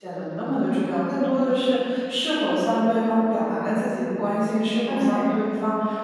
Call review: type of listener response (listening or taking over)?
listening